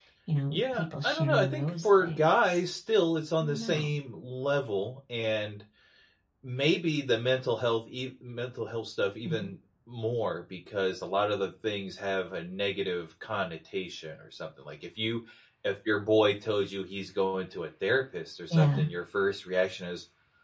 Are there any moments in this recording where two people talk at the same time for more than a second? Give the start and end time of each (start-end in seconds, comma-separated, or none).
0.5-2.2